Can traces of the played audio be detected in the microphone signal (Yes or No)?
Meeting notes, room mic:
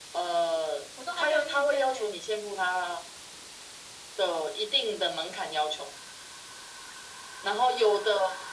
Yes